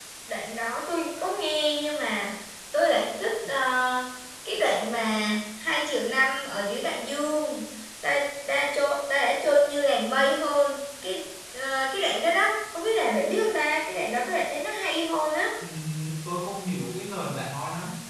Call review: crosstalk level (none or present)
none